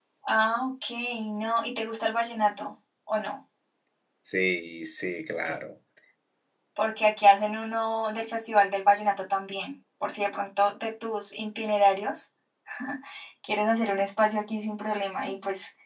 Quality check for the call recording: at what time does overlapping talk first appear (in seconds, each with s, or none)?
none